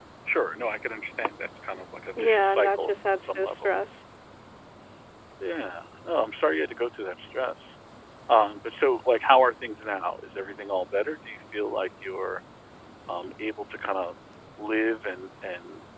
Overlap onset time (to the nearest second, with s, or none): 2 s